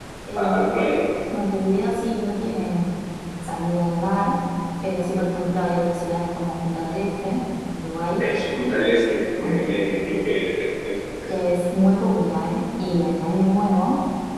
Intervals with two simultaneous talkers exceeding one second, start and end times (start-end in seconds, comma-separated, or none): none